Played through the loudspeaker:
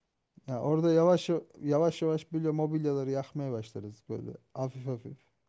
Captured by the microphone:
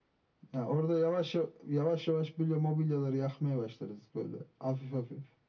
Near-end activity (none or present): none